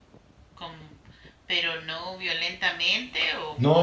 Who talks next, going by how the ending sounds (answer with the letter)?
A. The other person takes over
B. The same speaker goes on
A